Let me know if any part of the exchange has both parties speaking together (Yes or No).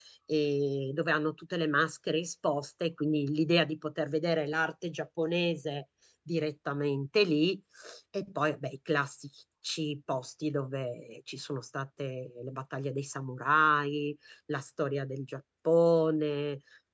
No